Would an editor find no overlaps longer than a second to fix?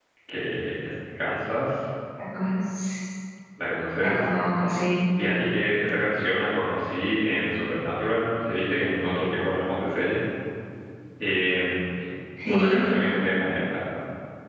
Yes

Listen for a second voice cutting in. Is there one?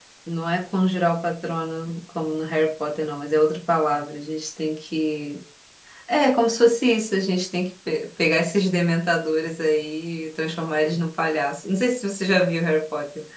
No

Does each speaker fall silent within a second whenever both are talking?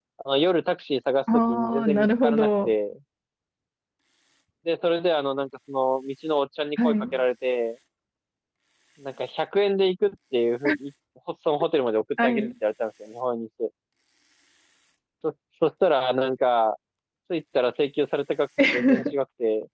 No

